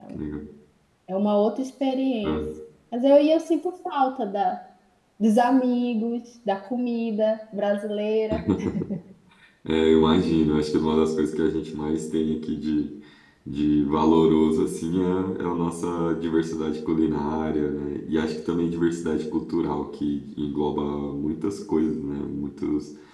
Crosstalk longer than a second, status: none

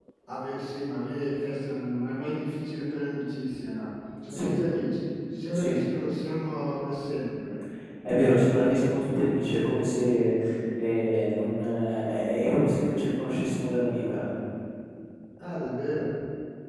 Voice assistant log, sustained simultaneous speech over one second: none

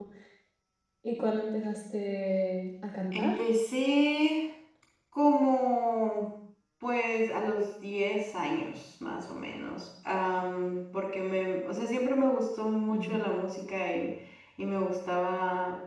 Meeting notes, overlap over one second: none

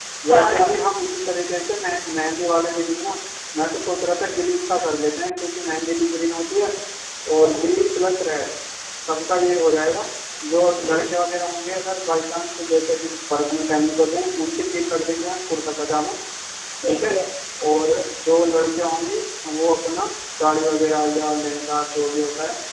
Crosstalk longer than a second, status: none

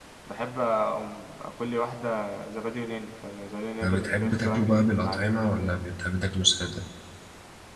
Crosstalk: present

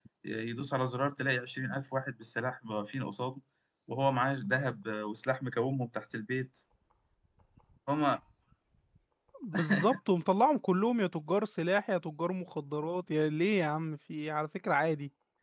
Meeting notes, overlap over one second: none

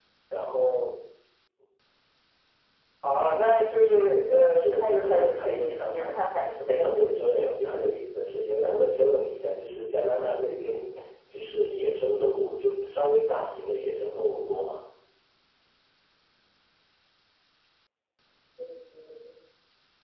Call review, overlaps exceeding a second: present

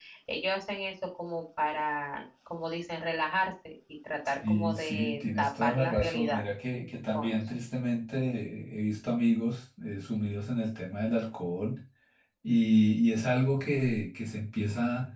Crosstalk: present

